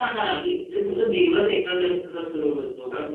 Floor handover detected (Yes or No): No